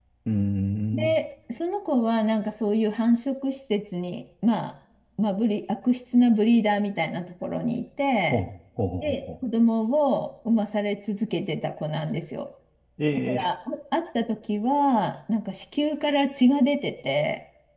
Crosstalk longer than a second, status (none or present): none